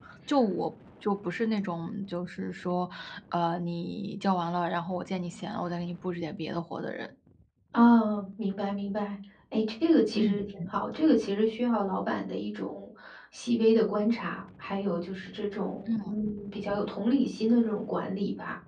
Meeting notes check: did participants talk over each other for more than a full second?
No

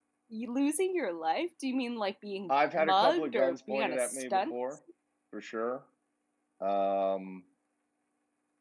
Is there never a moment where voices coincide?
No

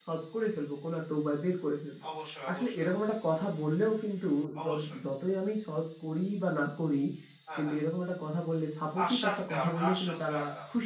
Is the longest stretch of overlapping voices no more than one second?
No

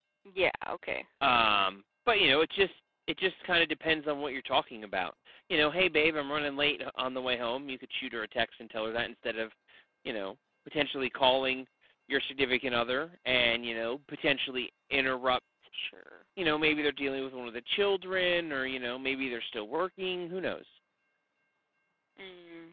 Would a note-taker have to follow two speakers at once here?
No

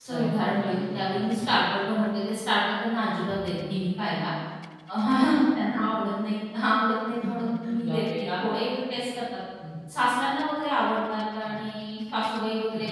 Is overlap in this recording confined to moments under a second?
No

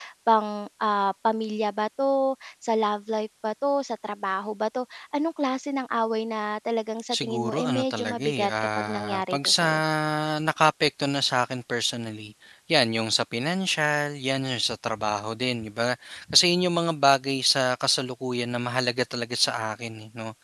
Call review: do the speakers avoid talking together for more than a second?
No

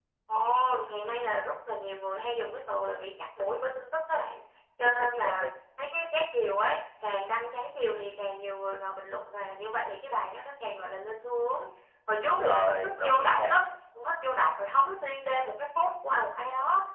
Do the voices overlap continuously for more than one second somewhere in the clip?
Yes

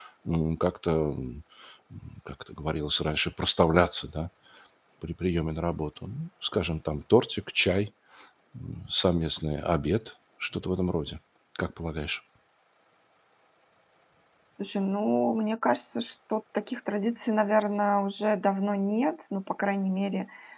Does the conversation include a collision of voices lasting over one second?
No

